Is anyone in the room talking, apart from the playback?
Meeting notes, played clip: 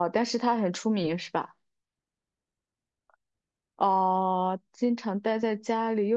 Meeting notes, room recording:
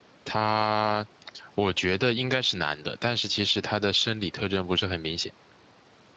Yes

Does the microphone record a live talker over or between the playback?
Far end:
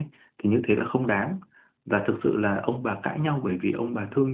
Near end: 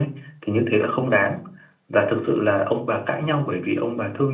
No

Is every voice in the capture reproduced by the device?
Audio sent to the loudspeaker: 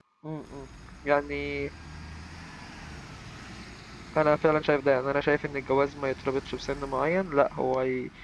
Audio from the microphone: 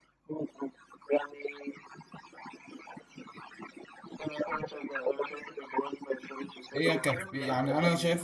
No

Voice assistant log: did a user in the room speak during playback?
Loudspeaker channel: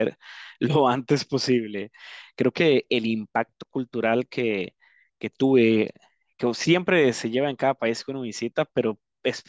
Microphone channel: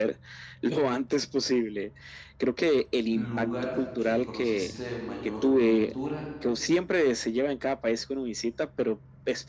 Yes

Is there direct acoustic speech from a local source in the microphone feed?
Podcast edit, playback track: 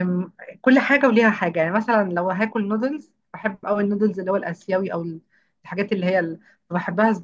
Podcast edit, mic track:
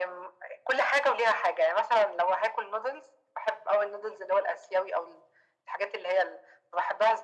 No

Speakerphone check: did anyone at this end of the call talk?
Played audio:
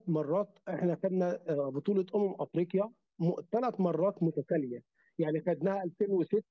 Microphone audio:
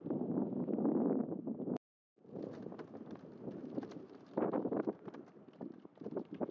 No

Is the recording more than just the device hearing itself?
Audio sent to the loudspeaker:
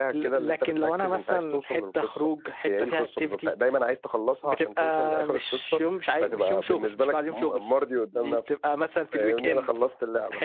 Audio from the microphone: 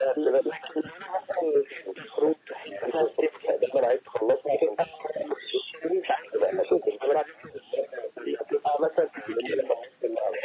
No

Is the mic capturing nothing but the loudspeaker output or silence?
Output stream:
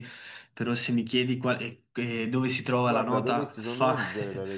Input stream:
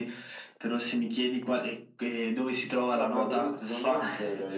Yes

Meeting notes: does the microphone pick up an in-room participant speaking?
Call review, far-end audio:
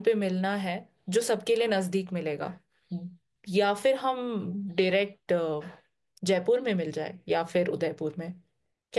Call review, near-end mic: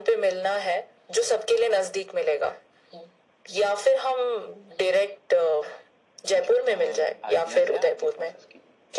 Yes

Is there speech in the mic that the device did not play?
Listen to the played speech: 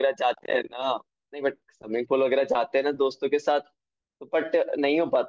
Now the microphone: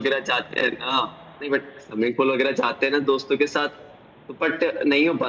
No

